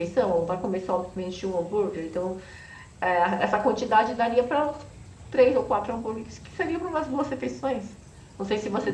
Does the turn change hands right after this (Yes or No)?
No